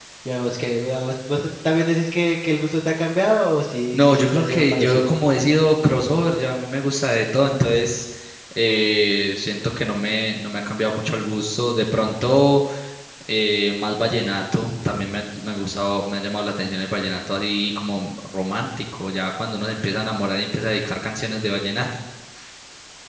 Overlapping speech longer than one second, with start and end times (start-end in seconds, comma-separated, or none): 3.9-5.2